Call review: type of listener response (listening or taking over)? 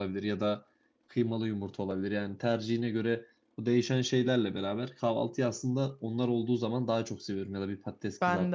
listening